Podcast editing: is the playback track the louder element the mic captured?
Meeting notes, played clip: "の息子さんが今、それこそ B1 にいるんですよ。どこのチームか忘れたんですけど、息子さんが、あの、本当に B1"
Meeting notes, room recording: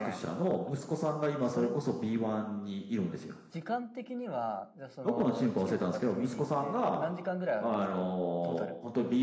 Yes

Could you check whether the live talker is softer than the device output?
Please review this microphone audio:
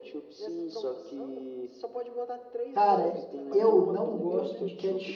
No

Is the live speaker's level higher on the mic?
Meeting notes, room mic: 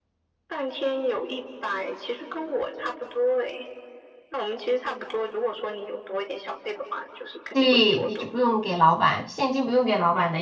Yes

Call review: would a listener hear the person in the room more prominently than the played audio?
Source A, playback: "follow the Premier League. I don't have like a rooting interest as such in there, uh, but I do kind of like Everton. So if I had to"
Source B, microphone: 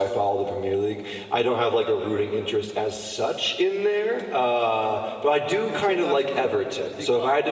No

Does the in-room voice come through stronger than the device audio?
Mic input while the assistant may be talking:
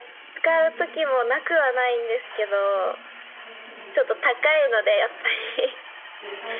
No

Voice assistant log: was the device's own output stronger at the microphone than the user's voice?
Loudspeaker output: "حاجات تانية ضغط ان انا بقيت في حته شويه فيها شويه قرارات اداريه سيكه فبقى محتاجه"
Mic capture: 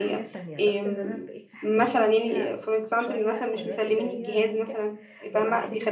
No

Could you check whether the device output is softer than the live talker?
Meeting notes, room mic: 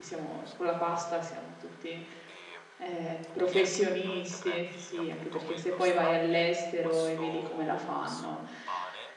Yes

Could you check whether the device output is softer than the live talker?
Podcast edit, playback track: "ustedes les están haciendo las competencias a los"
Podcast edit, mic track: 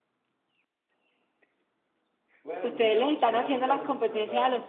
No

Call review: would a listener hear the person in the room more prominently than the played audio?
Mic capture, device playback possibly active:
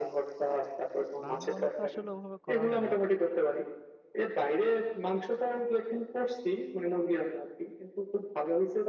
No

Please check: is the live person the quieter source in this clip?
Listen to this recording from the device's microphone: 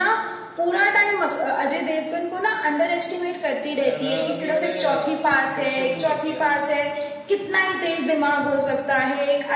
Yes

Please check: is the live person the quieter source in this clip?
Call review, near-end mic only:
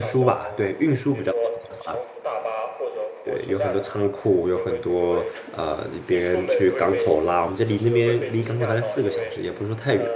No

